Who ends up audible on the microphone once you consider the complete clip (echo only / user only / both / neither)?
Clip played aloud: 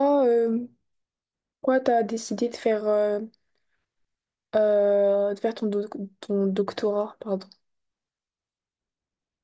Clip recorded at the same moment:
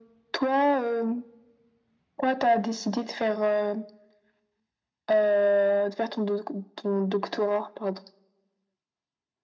echo only